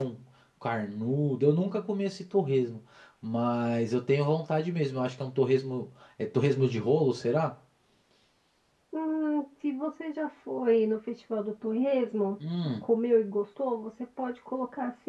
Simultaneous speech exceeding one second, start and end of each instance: none

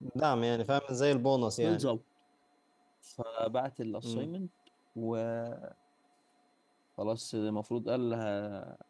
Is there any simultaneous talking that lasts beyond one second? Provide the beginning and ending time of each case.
none

